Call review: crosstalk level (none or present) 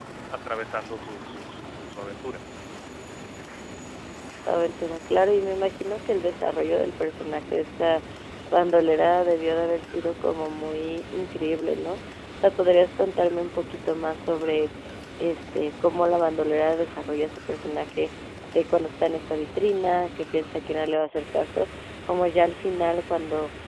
none